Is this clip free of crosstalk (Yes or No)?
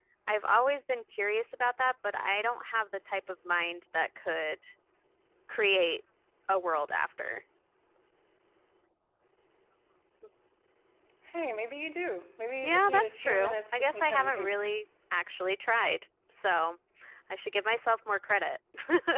No